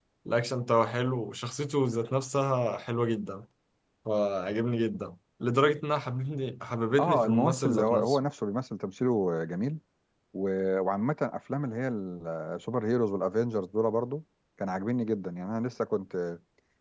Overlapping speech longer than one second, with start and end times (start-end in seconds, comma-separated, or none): 7.0-8.2